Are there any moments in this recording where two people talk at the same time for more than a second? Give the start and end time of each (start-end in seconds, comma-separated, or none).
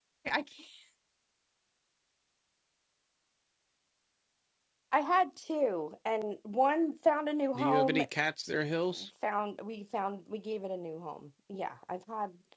none